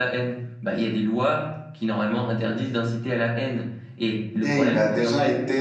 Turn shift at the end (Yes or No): Yes